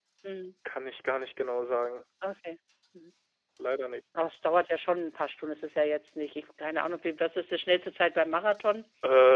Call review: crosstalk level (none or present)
none